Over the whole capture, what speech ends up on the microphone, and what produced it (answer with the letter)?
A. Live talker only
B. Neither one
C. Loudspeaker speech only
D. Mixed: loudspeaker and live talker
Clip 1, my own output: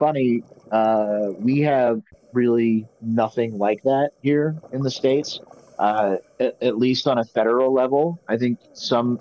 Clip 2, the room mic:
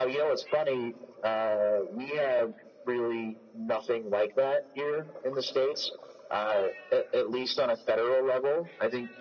C